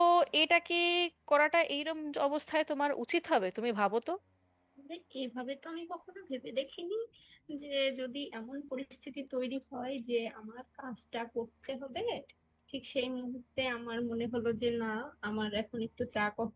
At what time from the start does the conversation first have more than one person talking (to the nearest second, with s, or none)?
none